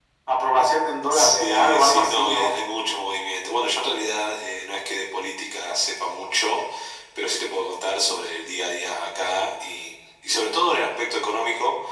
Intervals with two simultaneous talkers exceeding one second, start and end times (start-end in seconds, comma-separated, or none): 1.2-2.5